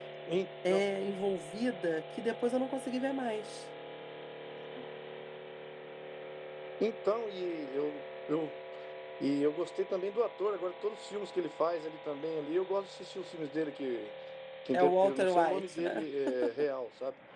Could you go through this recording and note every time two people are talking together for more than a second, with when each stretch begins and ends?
14.7-16.0

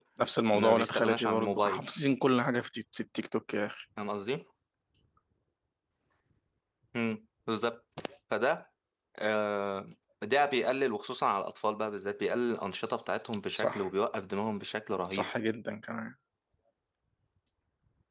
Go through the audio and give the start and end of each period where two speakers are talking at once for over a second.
0.5-1.8

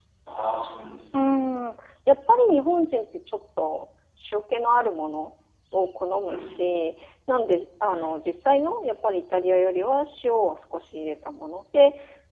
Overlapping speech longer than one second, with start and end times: none

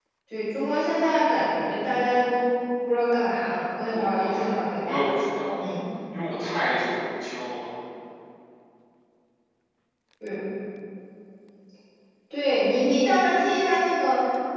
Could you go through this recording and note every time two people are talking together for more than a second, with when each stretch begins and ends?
3.9-5.1

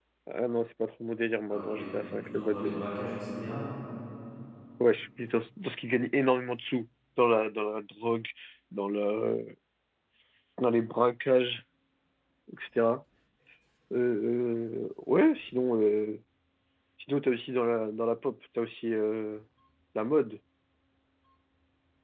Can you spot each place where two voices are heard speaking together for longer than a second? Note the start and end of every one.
1.5-2.9

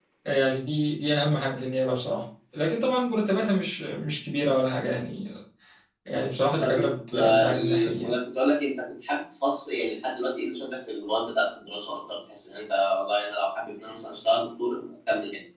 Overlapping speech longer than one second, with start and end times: 6.6-8.1

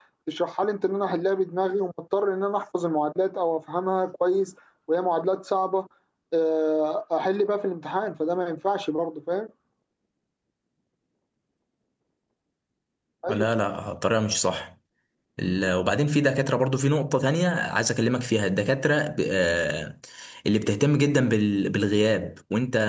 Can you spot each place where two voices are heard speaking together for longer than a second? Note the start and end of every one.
none

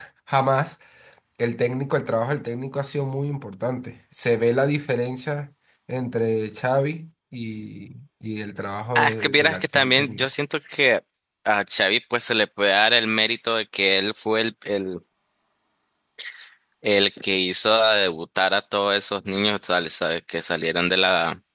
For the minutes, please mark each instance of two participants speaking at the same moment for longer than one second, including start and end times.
8.9-10.3

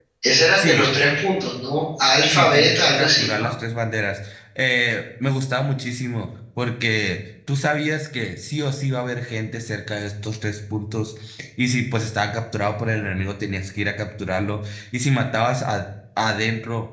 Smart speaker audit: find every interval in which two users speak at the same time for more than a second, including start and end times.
2.3-3.5

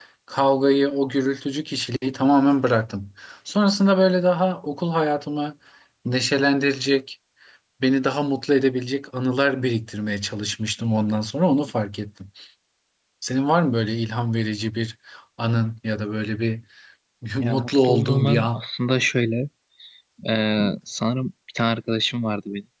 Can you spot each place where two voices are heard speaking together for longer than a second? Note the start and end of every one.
17.4-18.6

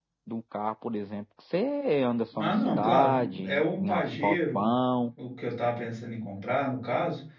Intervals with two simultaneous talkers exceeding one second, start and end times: 2.4-4.7

